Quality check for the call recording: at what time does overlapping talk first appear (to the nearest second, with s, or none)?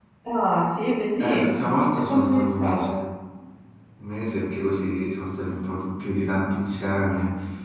1 s